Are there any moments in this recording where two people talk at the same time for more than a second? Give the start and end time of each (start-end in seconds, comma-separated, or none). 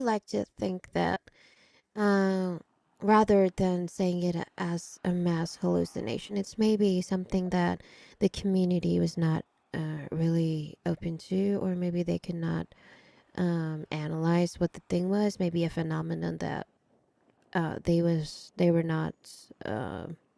none